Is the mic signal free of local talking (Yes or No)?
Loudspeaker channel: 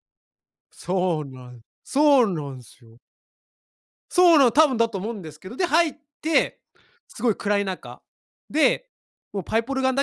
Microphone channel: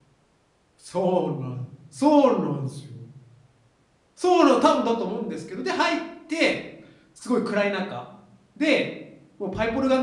Yes